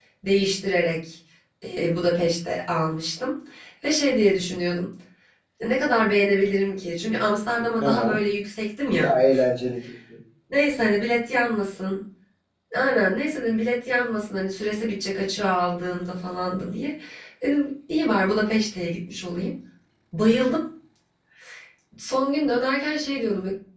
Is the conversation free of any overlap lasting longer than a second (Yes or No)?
Yes